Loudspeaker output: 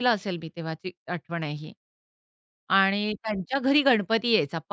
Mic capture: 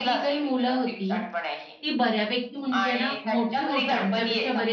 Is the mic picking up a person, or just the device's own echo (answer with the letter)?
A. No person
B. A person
B